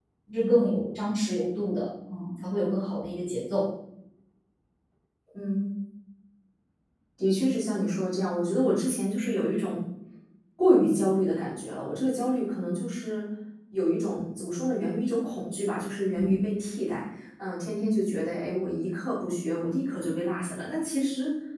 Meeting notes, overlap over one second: none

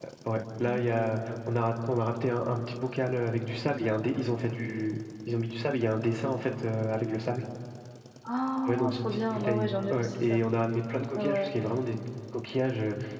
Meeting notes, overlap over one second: present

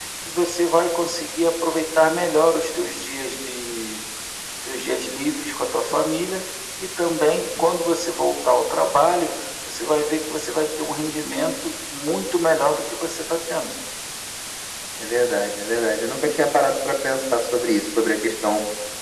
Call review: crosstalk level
none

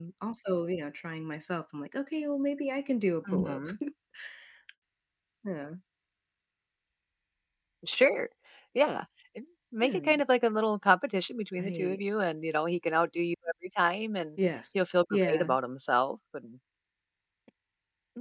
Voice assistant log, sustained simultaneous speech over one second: none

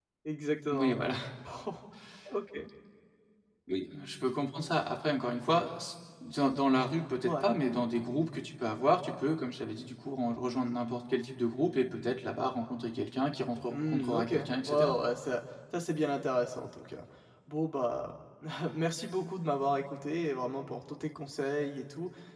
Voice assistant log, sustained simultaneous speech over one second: present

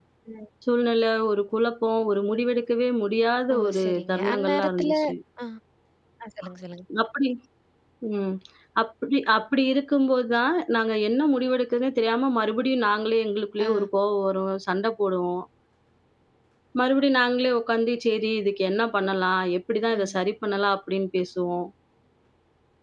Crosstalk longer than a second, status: present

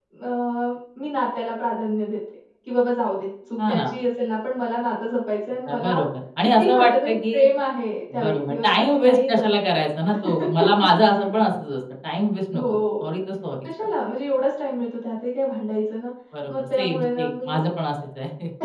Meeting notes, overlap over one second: present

